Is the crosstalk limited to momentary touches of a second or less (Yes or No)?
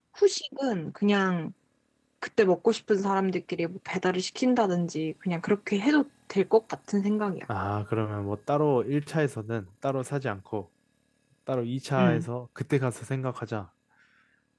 Yes